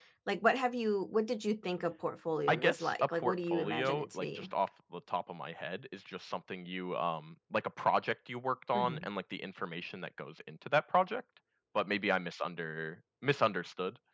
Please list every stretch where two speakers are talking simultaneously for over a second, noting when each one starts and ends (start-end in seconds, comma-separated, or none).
2.5-4.5